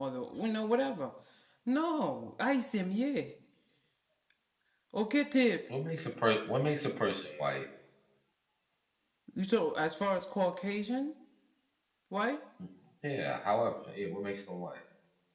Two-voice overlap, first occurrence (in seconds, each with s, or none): none